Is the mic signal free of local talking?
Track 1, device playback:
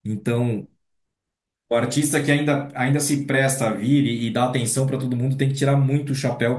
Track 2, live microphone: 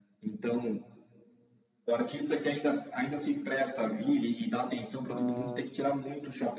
No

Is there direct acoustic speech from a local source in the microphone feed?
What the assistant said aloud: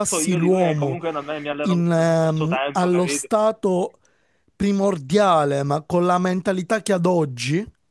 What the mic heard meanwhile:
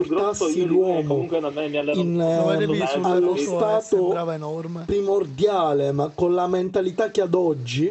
Yes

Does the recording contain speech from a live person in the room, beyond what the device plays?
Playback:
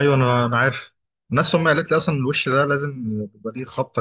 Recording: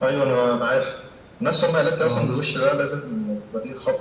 Yes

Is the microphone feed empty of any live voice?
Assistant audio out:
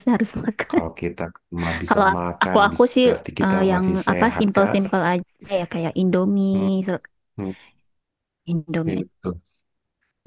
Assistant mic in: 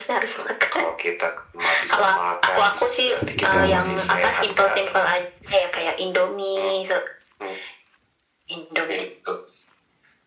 No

